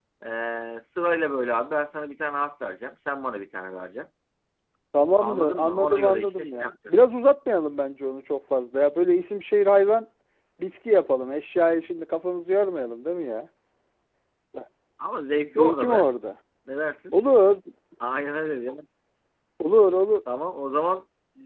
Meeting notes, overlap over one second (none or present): present